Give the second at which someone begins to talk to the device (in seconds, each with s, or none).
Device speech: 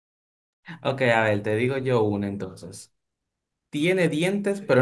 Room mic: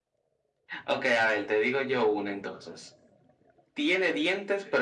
none